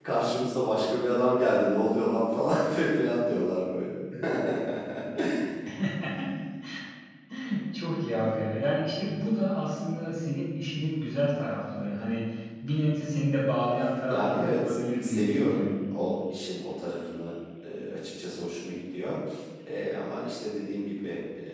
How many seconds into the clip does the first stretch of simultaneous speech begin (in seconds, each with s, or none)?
14.1 s